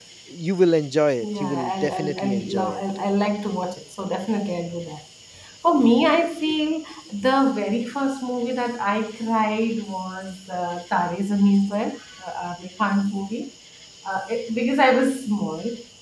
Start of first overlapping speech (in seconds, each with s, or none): 1.4 s